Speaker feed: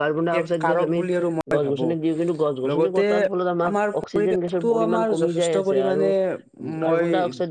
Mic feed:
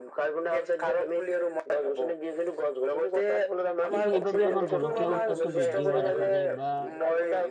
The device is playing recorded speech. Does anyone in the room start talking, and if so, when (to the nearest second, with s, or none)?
4 s